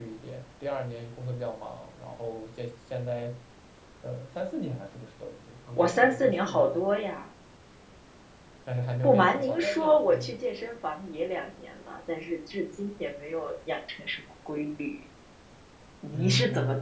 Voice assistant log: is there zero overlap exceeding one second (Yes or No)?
No